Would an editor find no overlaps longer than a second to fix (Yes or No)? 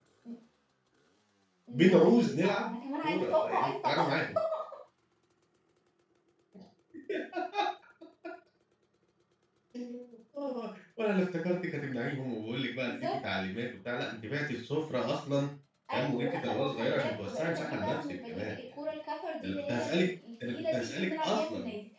No